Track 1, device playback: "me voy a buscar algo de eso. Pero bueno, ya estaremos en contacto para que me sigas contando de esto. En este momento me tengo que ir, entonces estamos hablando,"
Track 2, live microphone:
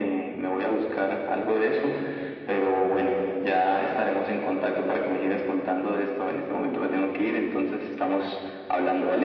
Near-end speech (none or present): none